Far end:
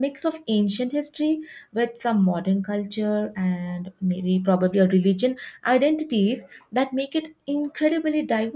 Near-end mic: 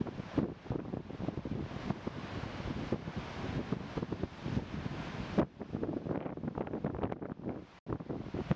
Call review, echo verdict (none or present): none